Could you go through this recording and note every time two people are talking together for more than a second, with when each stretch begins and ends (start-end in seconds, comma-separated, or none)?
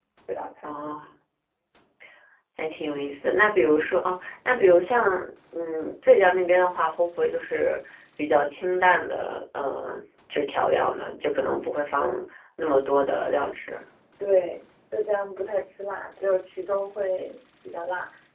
none